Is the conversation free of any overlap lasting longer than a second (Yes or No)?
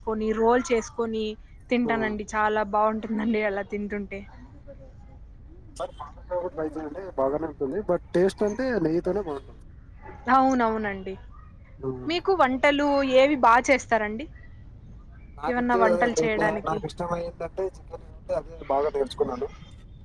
No